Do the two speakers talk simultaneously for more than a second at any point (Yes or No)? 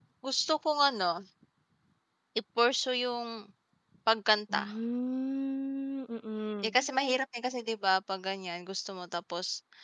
No